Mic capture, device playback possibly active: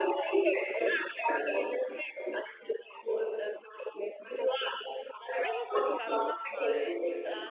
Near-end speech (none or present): present